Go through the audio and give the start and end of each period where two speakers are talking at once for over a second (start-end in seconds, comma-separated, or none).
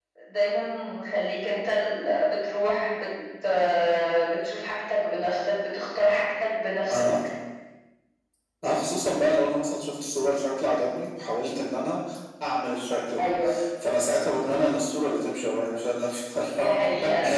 none